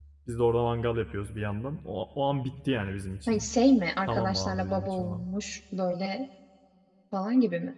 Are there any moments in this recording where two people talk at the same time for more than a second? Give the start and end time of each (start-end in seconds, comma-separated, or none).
4.1-5.3